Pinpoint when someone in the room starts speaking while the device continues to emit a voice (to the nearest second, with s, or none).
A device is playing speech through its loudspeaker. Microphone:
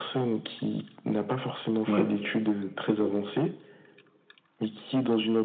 2 s